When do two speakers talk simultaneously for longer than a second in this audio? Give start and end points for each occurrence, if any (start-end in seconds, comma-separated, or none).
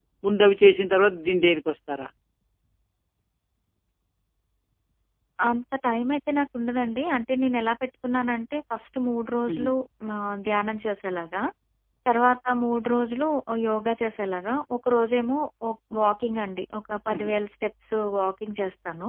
none